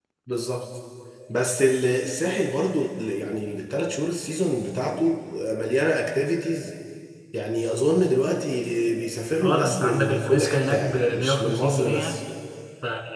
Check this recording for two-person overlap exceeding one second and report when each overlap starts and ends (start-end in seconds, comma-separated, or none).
9.4-12.2